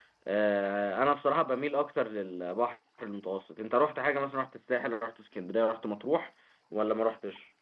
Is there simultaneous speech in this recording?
No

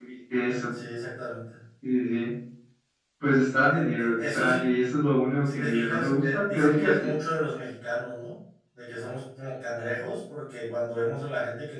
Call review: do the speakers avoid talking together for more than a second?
No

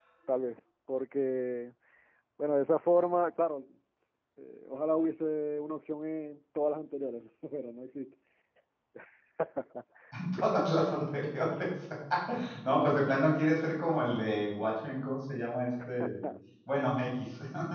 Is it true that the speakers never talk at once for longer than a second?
Yes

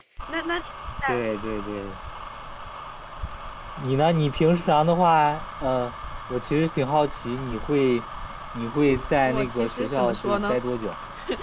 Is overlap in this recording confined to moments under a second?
No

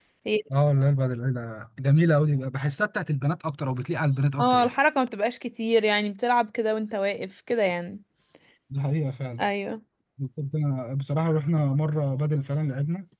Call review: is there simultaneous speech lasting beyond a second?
No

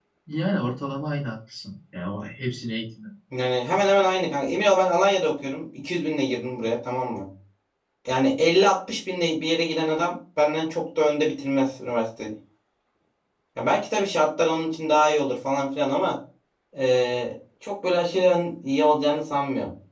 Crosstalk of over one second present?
No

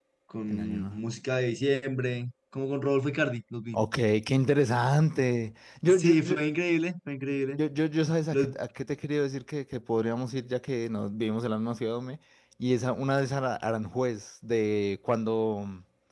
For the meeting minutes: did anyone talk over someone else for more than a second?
No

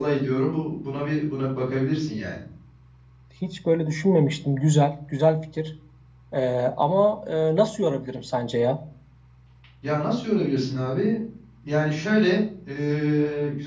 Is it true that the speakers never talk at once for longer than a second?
Yes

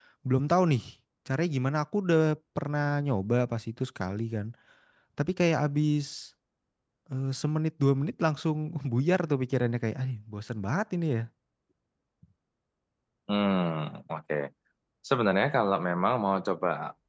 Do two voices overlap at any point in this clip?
No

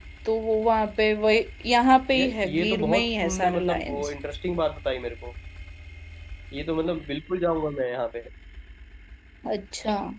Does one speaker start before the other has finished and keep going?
Yes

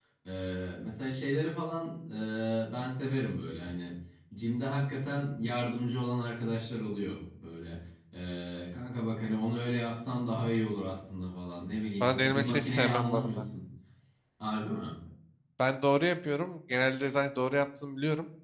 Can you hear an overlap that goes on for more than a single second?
Yes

